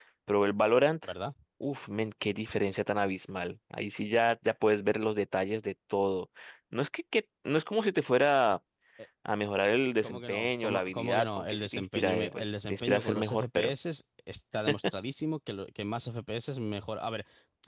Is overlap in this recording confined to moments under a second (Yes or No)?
No